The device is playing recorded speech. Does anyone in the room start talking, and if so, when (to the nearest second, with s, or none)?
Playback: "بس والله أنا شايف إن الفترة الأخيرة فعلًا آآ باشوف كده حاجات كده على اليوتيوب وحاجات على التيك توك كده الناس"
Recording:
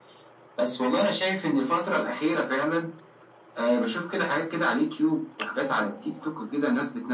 6 s